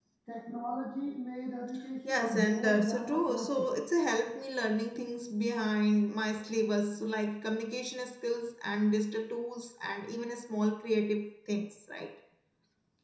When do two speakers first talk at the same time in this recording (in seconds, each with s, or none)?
2.0 s